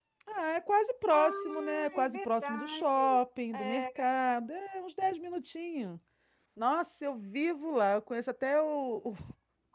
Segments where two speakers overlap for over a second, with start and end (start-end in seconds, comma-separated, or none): 1.1-3.0